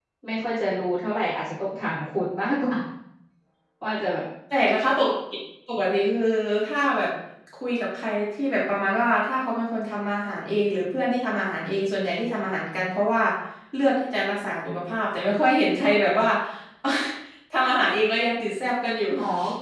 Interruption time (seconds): none

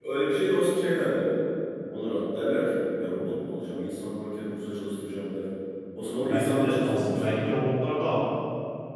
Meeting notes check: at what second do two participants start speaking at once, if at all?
6.2 s

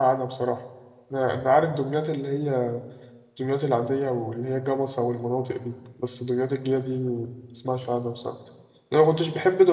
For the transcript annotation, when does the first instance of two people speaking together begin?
none

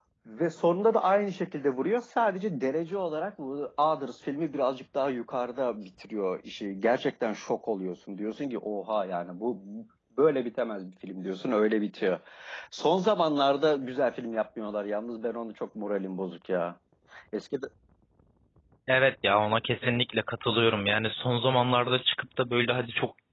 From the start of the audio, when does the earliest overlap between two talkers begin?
none

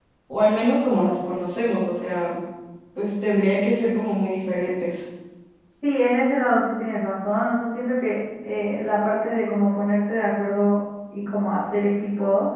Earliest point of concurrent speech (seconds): none

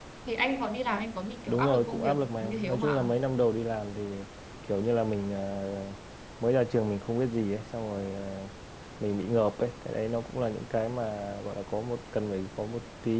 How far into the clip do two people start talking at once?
1.5 s

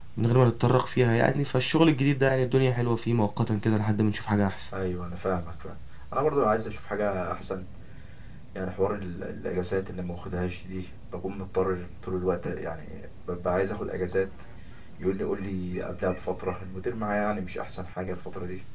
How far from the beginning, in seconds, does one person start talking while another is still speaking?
none

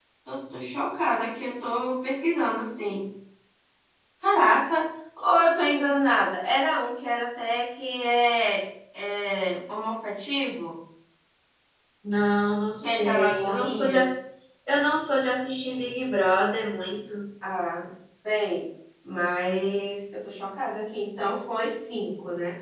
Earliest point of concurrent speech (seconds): 12.8 s

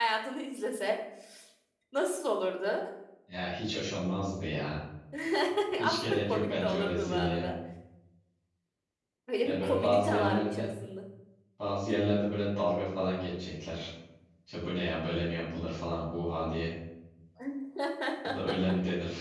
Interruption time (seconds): 5.8 s

